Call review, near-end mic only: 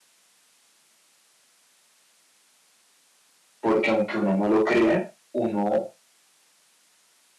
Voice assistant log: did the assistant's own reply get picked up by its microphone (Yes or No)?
No